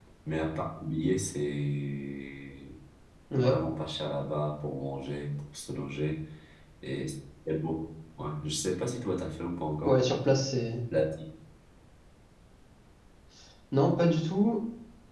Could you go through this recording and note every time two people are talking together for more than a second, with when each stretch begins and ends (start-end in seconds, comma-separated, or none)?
none